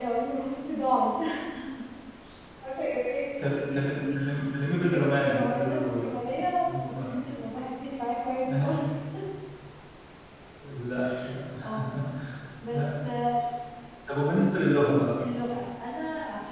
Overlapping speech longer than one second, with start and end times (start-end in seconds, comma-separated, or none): 4.8-6.1